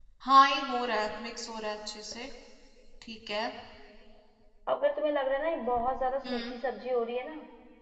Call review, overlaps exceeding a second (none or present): none